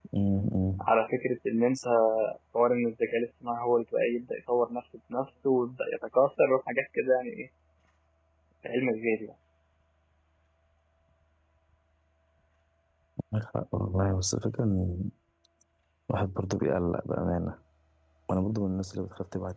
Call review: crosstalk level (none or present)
none